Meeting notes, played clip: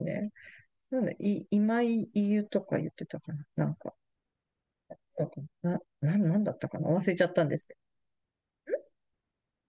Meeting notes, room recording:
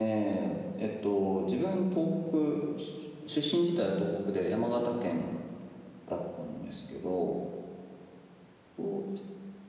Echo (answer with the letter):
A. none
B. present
A